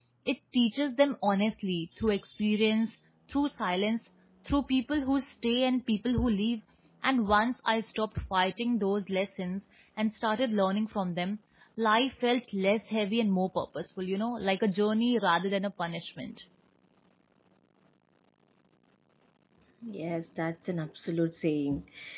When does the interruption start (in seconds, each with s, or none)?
none